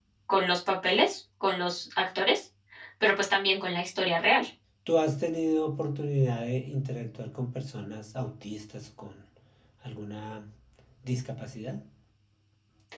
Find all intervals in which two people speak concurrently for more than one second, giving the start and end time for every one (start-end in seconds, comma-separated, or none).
none